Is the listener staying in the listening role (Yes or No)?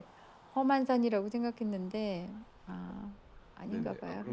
No